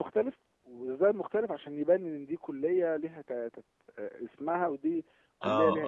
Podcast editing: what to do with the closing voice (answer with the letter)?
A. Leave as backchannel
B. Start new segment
B